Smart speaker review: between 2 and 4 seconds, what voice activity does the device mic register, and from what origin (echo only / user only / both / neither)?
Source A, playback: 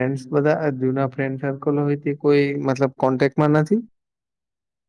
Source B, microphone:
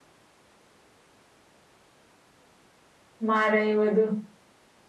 user only